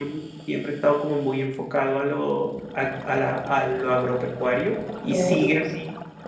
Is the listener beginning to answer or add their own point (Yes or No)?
No